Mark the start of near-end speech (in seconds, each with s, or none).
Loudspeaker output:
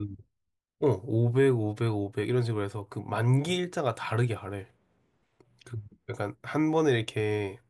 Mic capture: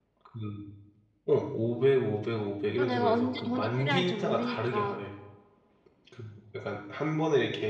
2.7 s